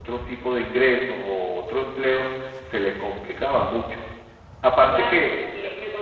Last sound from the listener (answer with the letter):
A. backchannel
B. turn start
B